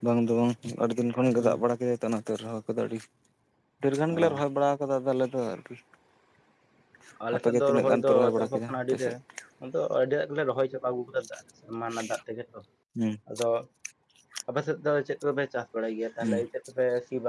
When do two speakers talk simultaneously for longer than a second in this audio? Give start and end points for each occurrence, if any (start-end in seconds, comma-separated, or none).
7.3-9.1